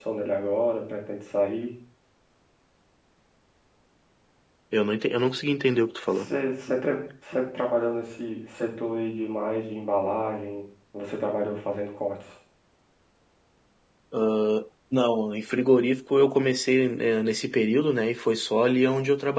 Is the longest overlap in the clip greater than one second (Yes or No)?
No